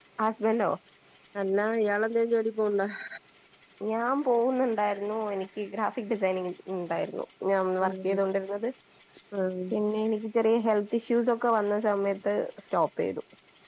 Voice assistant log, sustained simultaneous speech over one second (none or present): none